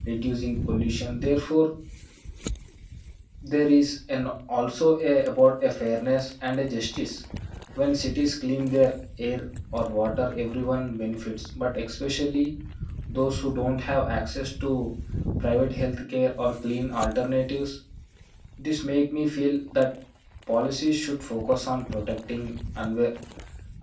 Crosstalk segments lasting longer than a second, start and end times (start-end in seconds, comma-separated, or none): none